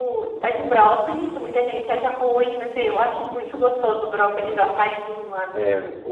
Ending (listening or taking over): taking over